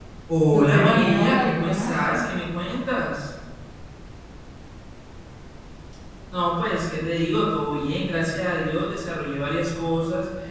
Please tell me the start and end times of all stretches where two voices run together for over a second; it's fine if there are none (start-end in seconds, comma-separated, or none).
0.5-2.0